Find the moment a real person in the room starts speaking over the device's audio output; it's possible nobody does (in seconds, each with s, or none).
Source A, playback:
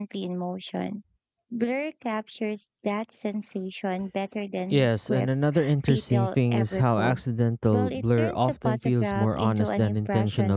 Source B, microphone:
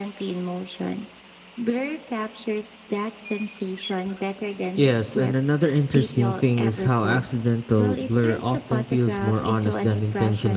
none